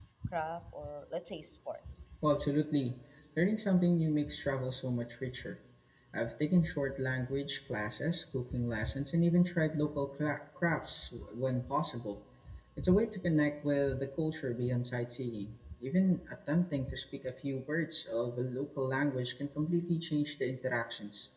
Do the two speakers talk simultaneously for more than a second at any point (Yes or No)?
No